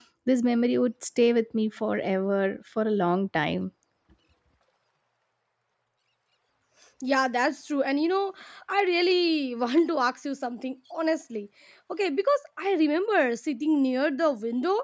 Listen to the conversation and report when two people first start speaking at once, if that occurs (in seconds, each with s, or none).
none